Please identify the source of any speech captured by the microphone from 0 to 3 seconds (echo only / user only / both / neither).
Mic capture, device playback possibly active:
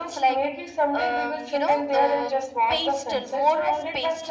echo only